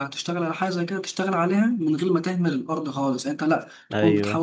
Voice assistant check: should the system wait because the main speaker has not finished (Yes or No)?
Yes